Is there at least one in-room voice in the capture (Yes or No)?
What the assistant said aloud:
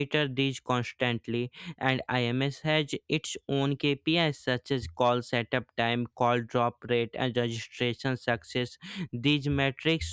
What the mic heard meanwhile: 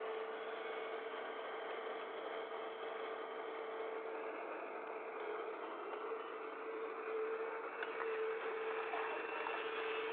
No